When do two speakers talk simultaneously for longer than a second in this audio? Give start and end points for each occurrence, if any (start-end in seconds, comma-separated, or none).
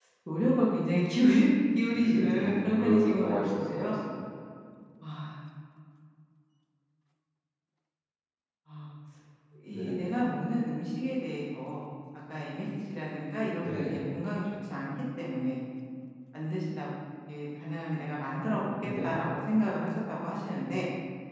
1.8-4.0